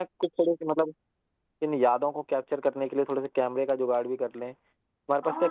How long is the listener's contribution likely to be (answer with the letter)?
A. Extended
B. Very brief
A